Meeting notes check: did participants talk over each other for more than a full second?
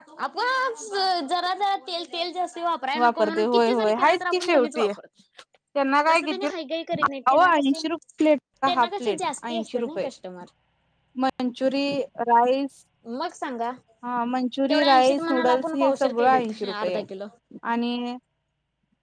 Yes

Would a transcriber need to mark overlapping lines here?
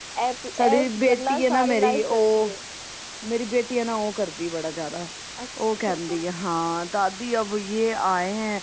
Yes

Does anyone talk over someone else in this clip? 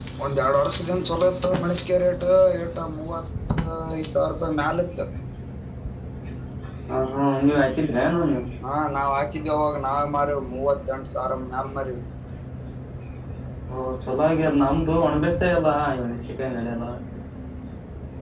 No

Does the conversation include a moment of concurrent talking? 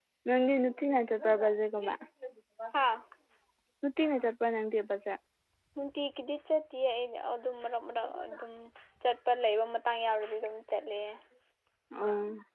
No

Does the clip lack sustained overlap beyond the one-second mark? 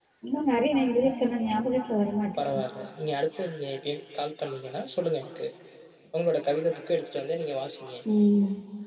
Yes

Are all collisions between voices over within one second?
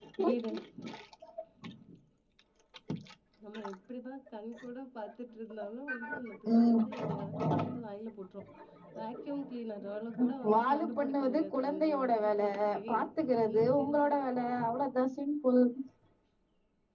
No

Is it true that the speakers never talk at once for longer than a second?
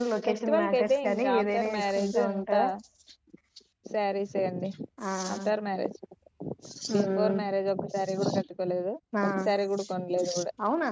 No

